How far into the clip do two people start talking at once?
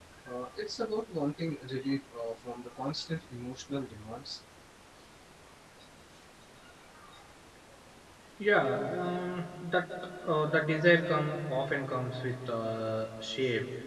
none

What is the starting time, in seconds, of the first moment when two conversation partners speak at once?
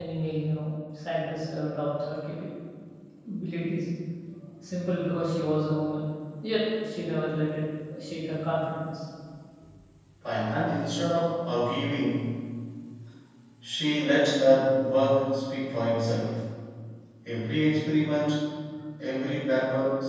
none

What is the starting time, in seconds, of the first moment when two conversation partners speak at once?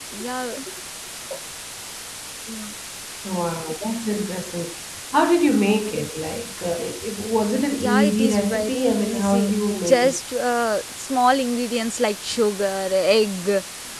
7.8 s

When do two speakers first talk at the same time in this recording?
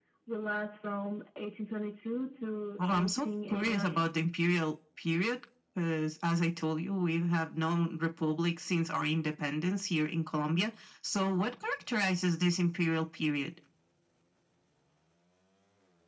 2.8 s

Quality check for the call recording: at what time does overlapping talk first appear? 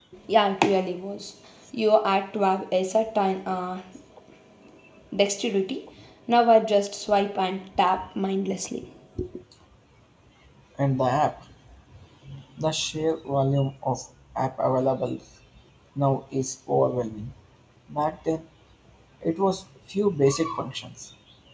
none

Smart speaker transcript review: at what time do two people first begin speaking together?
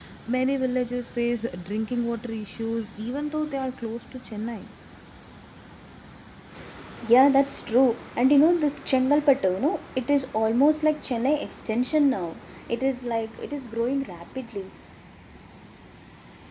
none

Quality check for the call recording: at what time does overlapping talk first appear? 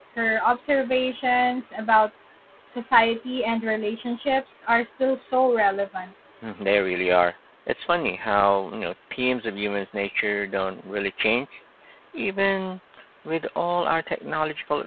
none

